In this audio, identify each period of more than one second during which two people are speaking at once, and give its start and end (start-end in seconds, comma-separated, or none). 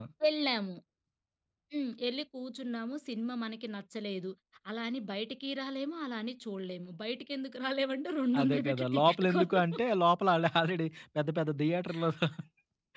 8.4-9.8